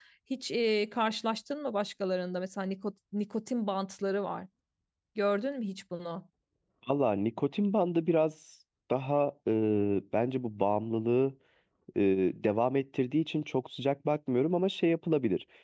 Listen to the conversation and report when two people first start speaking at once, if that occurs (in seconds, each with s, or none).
none